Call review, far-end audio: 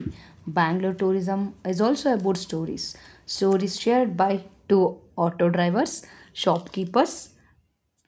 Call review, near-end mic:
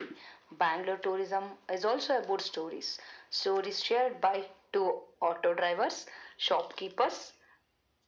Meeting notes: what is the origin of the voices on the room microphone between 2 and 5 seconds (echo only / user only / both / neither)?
echo only